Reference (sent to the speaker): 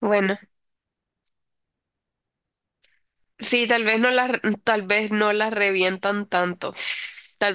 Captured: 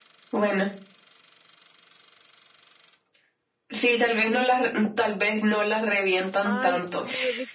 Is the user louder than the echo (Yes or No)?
No